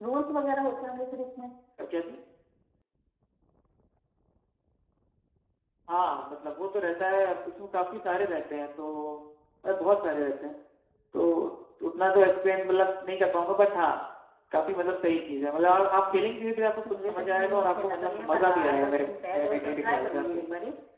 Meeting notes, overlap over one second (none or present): present